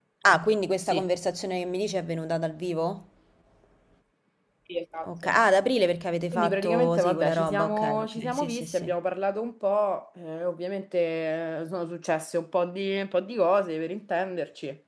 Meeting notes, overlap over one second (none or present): present